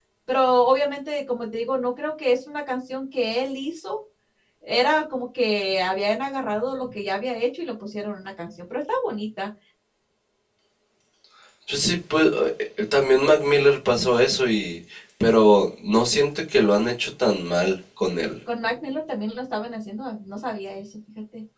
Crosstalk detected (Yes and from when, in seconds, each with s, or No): No